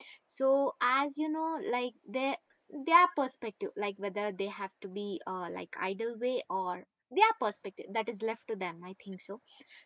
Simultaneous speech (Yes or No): No